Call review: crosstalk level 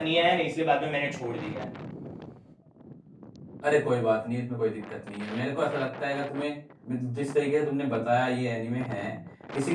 none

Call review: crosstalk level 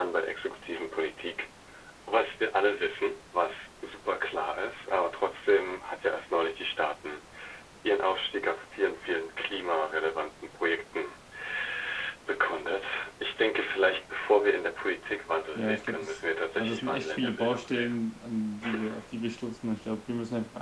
present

